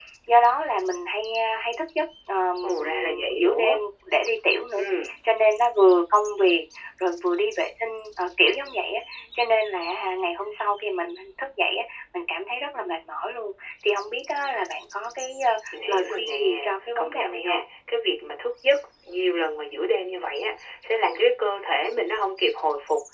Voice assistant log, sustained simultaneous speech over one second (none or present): present